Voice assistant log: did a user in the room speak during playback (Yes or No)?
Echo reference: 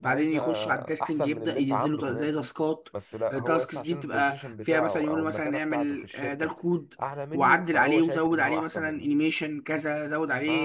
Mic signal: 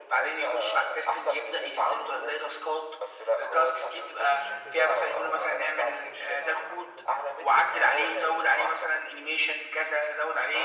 Yes